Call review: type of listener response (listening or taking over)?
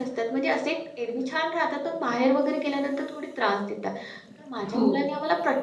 listening